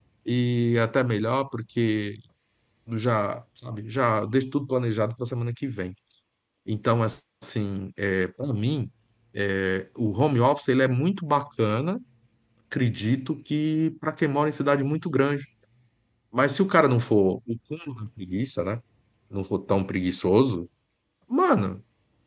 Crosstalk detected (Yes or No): No